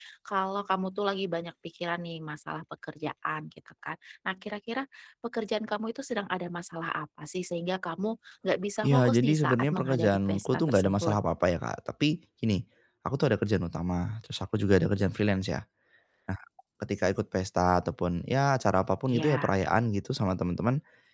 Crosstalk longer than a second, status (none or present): present